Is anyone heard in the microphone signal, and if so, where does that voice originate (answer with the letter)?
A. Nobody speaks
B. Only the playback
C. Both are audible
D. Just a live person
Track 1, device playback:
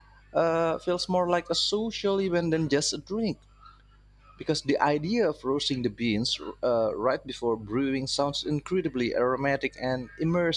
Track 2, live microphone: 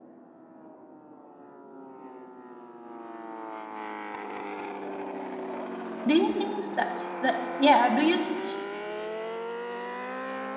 D